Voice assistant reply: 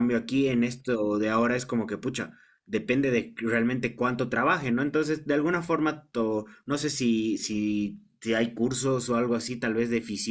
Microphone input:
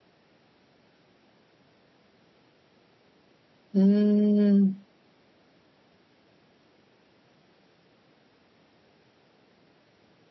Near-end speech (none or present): present